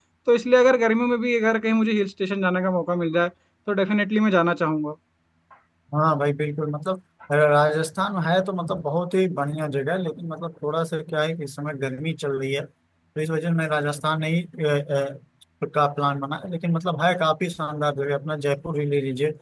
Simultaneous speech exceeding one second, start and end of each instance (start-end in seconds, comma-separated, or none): none